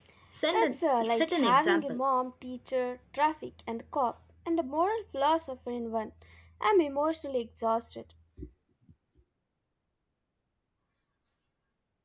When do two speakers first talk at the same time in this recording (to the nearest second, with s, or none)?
1 s